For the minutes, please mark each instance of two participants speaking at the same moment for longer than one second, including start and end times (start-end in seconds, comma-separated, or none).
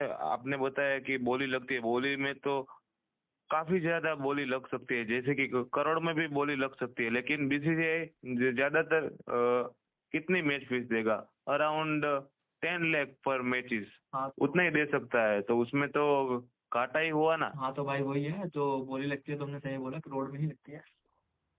none